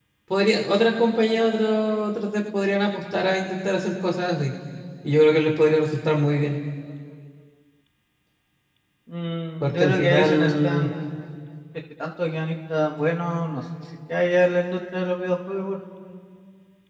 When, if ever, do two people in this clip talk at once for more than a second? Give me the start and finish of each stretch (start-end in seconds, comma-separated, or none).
9.6-10.9